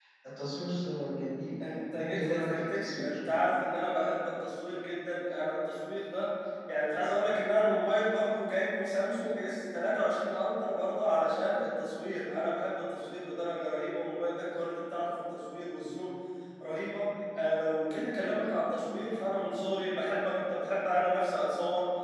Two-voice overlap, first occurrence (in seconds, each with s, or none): 1.6 s